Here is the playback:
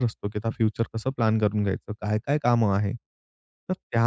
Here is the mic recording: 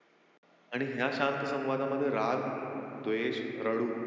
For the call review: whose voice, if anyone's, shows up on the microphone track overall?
user only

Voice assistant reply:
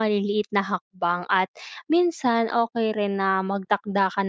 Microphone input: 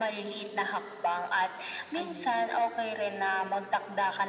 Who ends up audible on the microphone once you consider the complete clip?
both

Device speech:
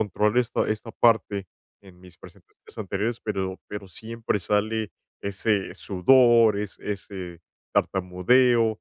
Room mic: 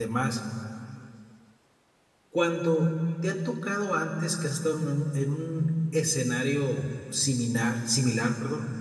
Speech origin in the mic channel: user only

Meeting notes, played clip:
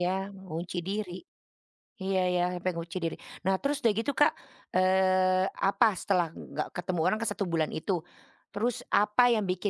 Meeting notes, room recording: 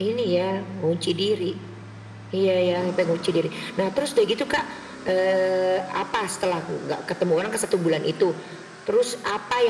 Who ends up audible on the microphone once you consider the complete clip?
echo only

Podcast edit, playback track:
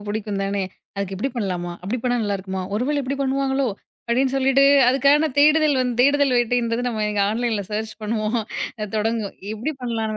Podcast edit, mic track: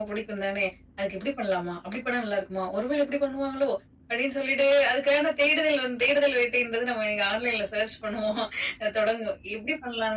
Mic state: echo only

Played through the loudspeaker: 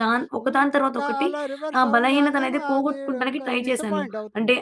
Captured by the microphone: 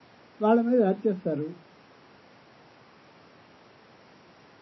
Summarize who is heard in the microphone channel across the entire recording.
user only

